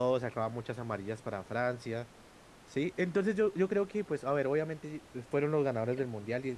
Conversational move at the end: taking over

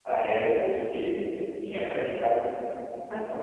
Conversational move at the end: listening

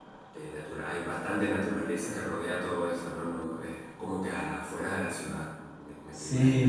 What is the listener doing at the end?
taking over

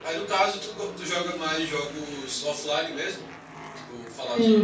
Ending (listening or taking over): taking over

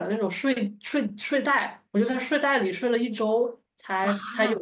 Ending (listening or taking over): listening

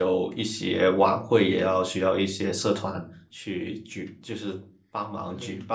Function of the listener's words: taking over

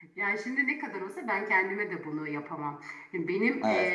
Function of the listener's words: listening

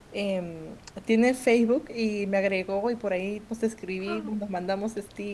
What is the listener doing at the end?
listening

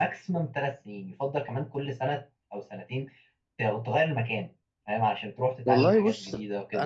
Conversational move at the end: taking over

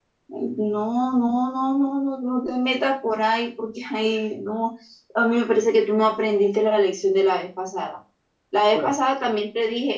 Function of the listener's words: listening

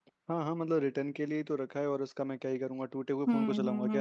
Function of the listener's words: taking over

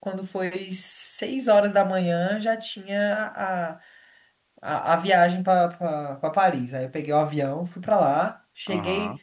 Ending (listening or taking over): listening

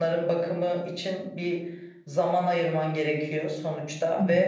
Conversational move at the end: listening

